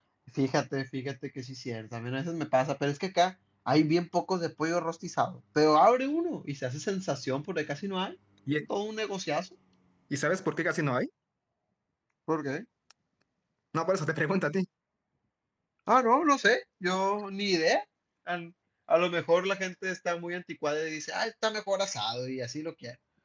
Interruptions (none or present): none